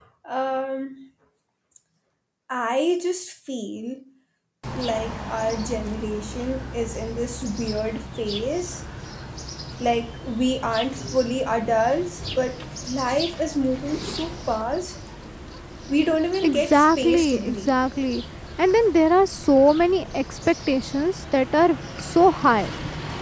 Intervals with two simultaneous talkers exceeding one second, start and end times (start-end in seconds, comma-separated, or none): 16.4-17.7